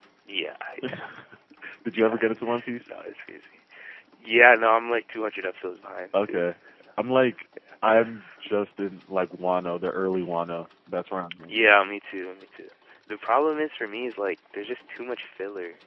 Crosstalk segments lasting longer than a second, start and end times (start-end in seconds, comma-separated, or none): none